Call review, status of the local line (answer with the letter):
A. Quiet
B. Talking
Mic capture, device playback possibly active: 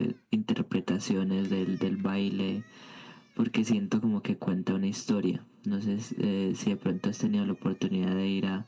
A